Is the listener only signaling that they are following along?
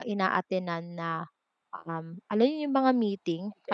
Yes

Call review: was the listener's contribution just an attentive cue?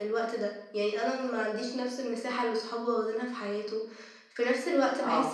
Yes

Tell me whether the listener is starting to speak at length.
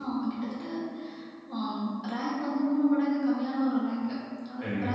No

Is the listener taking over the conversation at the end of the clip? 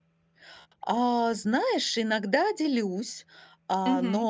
No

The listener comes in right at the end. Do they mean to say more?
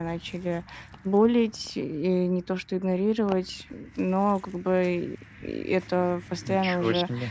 No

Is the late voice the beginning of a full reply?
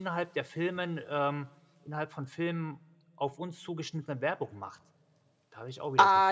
Yes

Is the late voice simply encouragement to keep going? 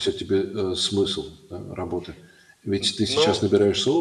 Yes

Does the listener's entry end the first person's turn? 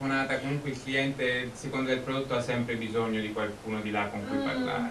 Yes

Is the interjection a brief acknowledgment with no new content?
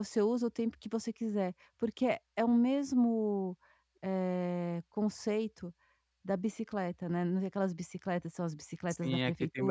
No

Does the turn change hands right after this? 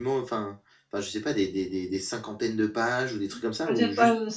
Yes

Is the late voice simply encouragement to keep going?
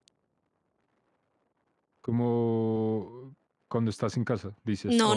No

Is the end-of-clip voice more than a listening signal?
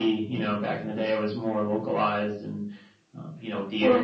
No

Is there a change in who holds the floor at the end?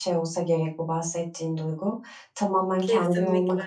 No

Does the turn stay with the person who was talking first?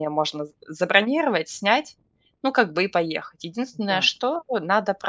Yes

